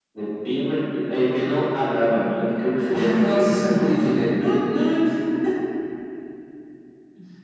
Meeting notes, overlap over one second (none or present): present